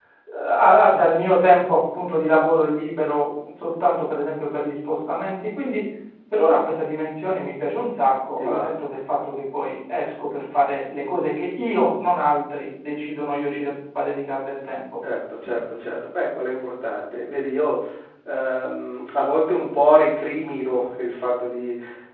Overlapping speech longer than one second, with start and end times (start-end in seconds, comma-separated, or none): none